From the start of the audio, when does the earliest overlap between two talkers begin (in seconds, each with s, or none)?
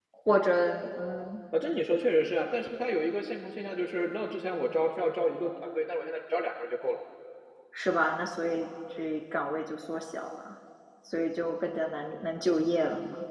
none